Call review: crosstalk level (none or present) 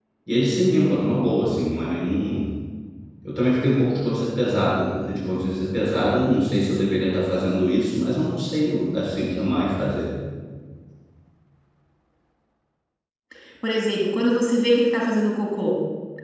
none